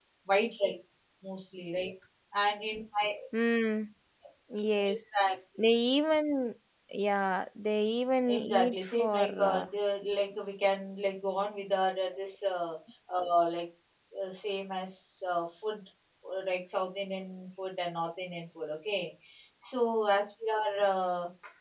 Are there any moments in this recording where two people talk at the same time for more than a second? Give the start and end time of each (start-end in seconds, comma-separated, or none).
8.3-9.7